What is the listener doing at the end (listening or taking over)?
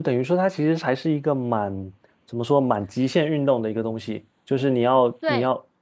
listening